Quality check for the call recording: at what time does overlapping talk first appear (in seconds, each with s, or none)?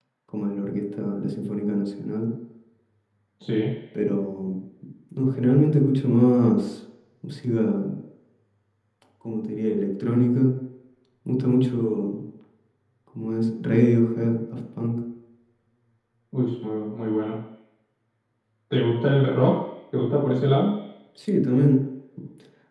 none